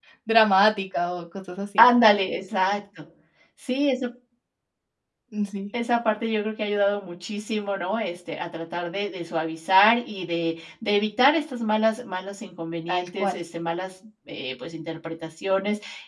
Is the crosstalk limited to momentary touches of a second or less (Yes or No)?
Yes